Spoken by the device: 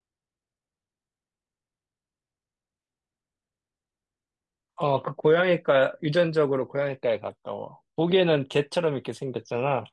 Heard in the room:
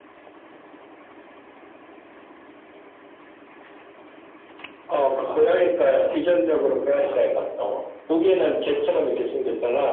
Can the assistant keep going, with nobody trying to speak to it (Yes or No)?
No